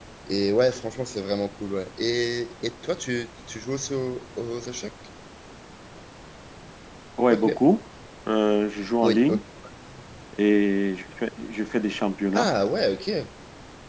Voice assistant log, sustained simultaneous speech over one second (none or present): none